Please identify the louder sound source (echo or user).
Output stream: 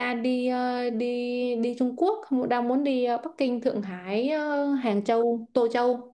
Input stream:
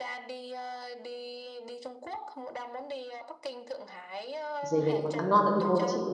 user